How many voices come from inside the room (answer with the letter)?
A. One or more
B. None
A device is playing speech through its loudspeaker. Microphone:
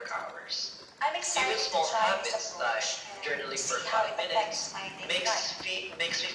B